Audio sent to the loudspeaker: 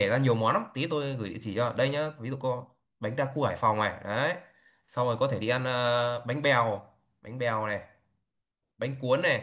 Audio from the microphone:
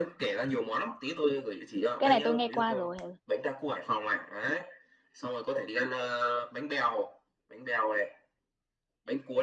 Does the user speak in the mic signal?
Yes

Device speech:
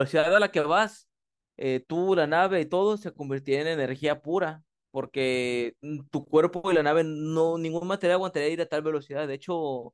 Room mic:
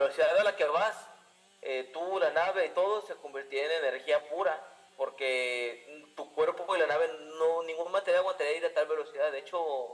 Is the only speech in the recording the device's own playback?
Yes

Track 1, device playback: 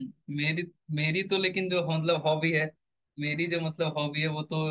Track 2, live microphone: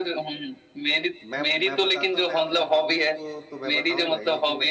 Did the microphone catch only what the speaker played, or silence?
No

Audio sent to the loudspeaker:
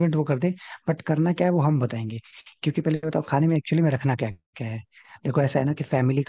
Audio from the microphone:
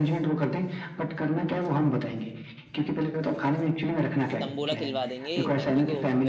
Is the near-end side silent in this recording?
No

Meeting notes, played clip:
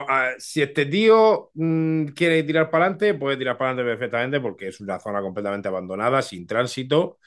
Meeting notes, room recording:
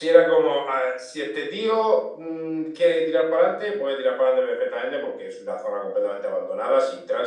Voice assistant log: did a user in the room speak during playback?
No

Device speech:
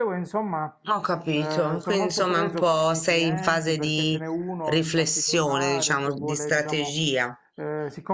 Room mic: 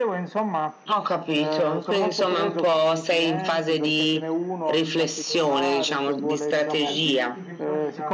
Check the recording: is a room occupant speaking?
Yes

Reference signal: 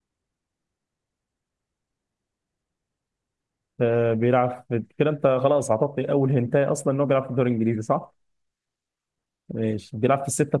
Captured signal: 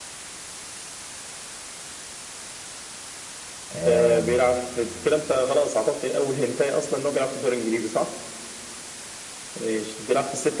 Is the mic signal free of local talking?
No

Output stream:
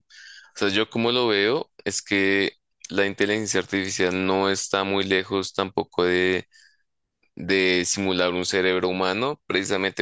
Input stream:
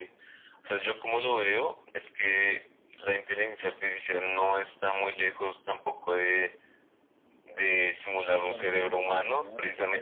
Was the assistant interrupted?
Yes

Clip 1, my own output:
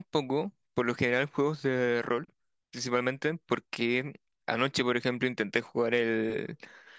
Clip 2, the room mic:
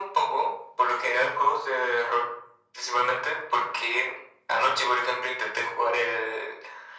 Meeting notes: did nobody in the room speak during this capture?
Yes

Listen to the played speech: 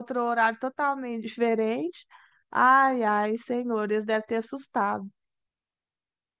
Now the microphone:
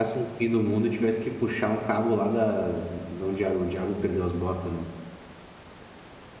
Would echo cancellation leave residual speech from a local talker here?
Yes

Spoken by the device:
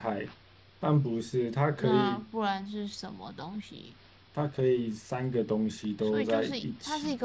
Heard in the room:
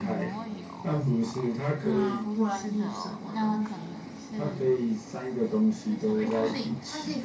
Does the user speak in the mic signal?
Yes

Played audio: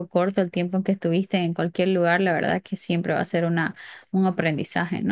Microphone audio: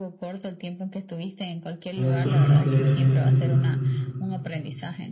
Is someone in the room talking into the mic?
Yes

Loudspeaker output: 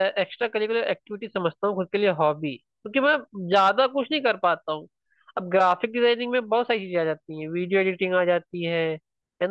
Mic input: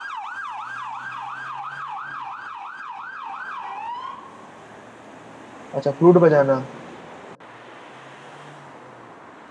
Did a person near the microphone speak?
Yes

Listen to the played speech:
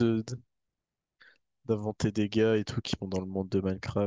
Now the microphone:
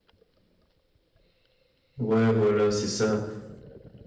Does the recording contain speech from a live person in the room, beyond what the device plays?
Yes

